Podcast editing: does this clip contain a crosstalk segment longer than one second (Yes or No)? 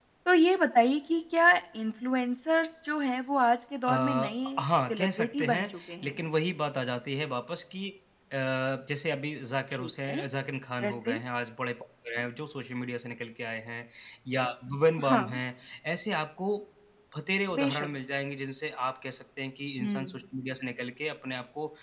Yes